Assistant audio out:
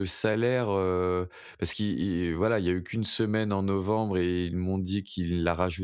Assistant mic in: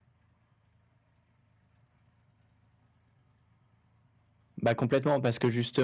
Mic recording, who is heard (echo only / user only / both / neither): user only